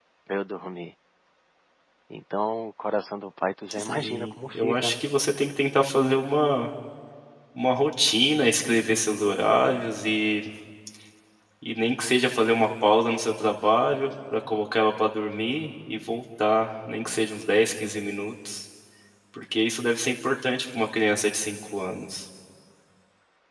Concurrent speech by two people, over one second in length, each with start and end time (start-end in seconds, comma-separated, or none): 3.7-4.9